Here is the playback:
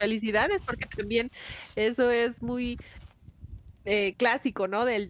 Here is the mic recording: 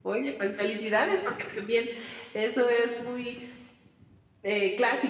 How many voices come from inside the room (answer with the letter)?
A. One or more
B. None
B